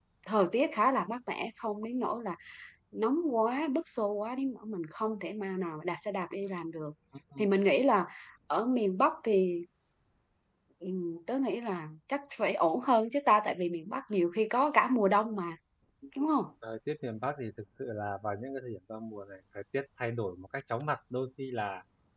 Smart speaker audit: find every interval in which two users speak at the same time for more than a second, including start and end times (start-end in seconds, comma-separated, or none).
none